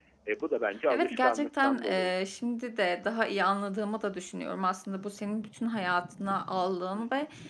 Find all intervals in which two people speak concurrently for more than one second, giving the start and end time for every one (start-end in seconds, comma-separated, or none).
0.9-2.1